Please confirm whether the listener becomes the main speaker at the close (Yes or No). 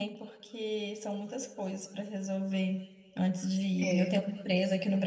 No